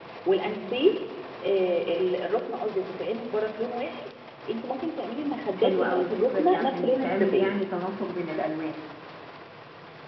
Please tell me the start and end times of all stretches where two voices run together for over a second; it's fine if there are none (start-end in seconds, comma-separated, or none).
5.6-7.5